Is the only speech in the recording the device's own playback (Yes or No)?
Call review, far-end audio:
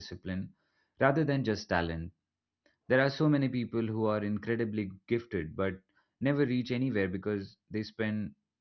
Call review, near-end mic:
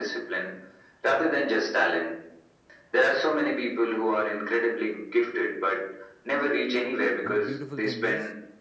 No